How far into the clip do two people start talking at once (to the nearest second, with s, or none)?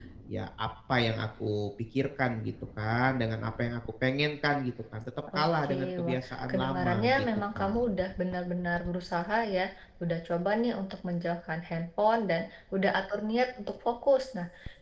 5 s